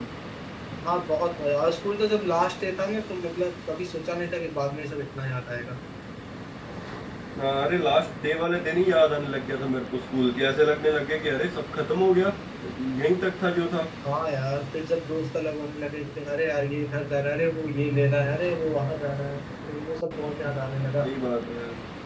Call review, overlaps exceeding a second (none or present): none